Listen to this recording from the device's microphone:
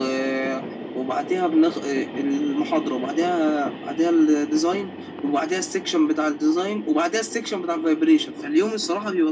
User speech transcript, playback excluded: none

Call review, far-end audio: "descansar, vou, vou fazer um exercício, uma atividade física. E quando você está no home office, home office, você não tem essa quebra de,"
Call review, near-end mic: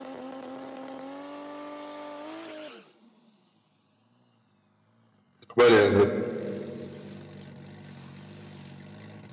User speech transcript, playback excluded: trabalhando.

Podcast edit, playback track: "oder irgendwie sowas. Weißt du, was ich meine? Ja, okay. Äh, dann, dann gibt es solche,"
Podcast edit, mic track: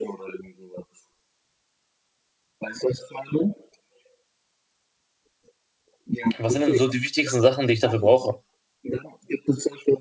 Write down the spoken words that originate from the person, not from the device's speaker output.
Was sind denn so die wichtigsten Sachen, die ich dafür brauche?

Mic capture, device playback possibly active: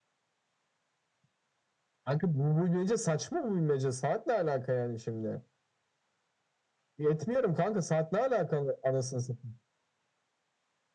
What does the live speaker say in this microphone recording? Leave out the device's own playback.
none

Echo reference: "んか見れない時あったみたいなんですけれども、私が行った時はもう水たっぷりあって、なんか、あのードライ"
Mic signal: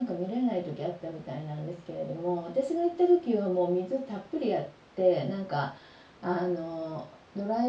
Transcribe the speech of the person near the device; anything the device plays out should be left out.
none

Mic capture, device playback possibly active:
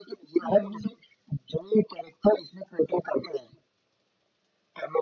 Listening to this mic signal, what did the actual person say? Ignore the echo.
हम्म

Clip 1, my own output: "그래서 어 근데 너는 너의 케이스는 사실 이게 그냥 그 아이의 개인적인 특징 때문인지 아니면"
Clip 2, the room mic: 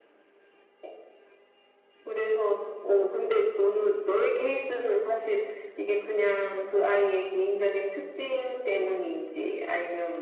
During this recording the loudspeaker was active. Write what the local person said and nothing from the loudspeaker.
none

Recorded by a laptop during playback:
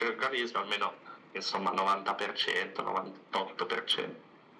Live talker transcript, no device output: none

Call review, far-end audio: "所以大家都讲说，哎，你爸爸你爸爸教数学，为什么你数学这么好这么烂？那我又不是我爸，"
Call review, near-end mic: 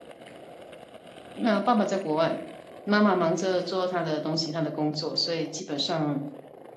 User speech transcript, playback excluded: 那爸爸在国外，妈妈忙着做她的东西，她的工作，所以基本上

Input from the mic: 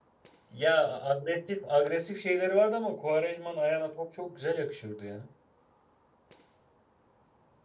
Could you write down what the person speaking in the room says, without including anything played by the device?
Ya agresif agresif şeyleri vardı ama Quaresma'nın ayağına top çok güzel yakışıyordu ya.

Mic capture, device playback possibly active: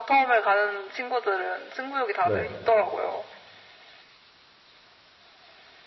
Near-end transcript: 네.

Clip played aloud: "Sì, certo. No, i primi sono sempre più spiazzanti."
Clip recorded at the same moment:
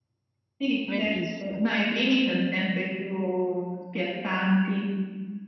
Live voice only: Bellissimo.

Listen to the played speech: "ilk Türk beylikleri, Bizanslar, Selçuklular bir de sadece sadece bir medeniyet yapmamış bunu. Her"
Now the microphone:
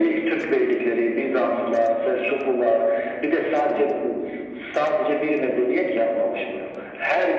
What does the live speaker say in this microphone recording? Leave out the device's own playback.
none

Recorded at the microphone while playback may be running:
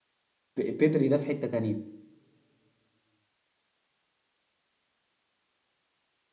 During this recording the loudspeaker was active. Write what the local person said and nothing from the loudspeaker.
بيدري ده في حته تانية

